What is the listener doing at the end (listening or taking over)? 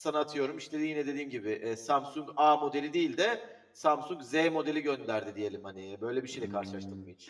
taking over